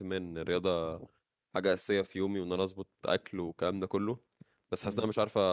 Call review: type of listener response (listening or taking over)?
listening